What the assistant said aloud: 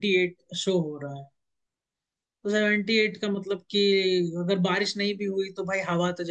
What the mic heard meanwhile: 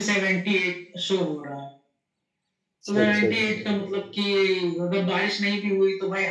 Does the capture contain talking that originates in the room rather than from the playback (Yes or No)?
Yes